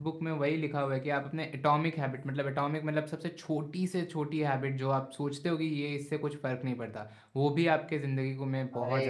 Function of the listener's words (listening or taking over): taking over